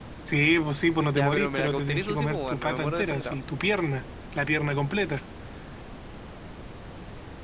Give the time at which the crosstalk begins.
1.1 s

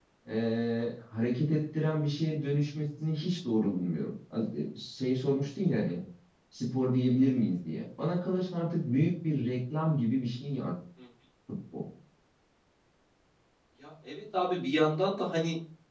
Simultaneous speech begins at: none

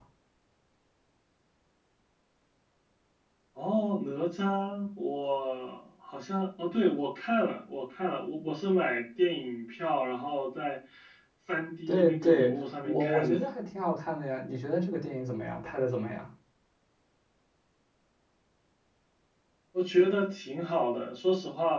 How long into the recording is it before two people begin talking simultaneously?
11.9 s

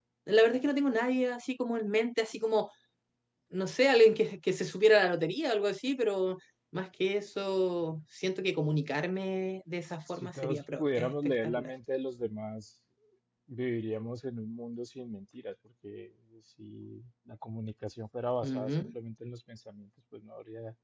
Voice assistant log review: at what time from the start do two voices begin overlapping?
10.2 s

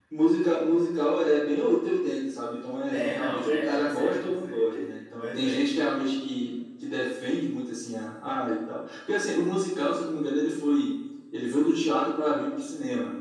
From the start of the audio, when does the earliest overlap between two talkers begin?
2.9 s

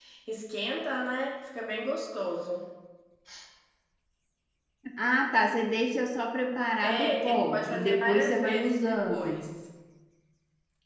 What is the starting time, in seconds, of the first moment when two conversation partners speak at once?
6.8 s

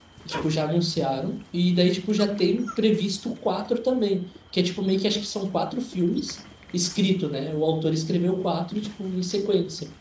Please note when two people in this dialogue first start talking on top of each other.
none

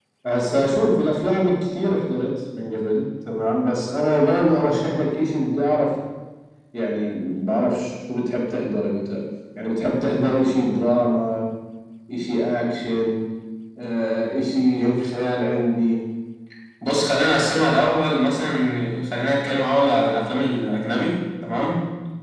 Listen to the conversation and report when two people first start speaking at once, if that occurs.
none

